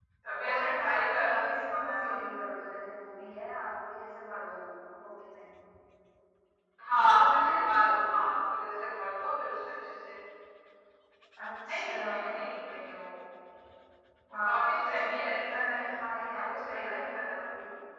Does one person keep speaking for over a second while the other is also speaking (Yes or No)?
Yes